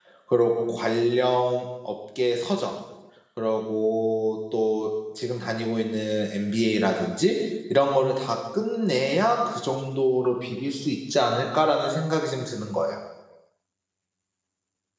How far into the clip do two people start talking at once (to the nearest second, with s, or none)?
none